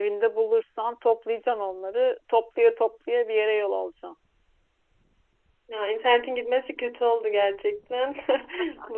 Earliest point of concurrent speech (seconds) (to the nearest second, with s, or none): none